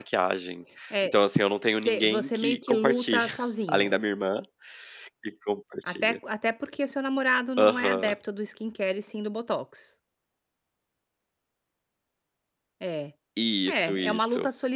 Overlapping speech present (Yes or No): Yes